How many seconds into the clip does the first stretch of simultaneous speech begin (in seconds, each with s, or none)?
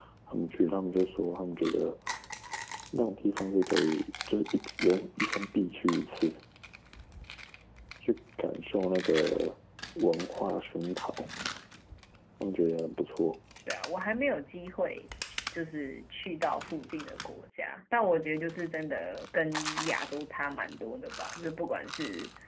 none